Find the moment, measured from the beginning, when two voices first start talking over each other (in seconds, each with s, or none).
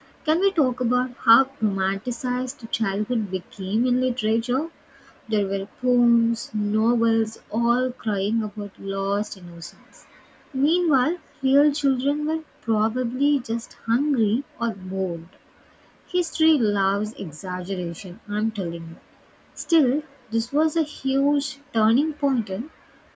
none